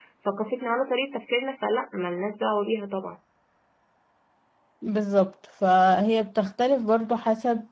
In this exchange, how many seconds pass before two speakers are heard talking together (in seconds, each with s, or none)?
none